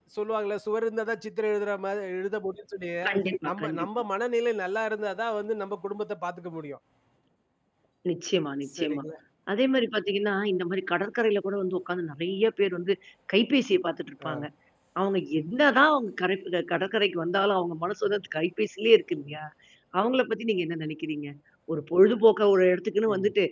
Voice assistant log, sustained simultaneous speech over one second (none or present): none